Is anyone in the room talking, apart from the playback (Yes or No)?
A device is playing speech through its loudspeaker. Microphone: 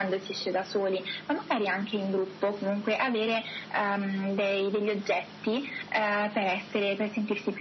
No